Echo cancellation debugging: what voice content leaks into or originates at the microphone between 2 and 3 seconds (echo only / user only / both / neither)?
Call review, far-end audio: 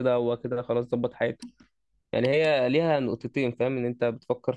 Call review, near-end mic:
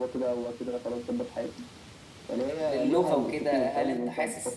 both